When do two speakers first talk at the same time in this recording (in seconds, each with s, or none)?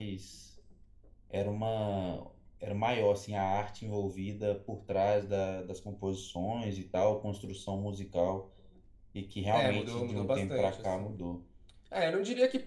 9.5 s